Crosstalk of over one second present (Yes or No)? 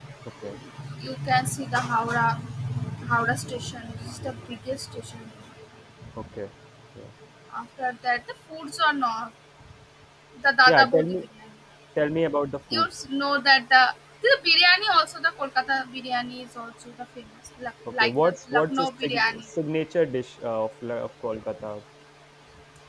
Yes